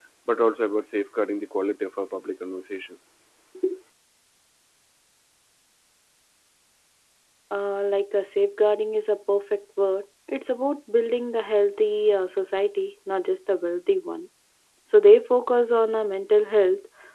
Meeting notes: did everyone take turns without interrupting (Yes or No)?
Yes